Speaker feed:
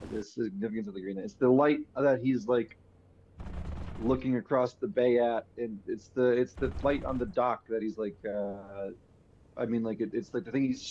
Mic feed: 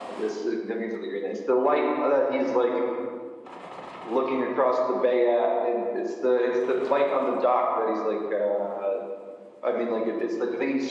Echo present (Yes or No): Yes